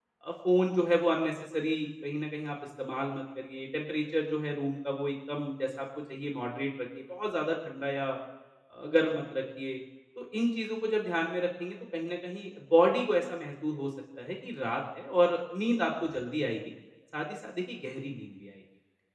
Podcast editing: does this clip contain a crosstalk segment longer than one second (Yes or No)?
No